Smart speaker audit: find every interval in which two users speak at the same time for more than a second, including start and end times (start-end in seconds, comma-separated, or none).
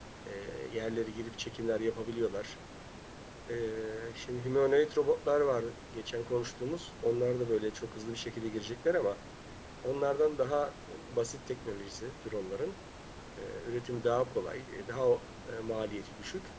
none